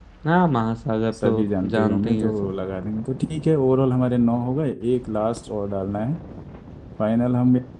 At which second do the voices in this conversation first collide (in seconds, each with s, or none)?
1.2 s